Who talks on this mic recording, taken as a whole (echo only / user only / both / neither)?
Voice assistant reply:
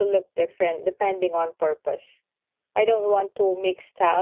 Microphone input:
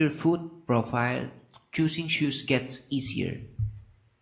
user only